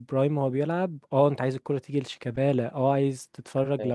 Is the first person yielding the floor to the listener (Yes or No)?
No